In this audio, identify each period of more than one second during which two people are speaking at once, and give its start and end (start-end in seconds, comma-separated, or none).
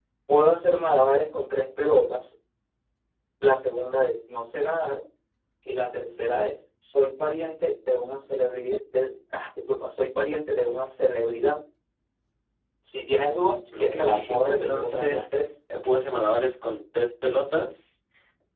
13.8-15.2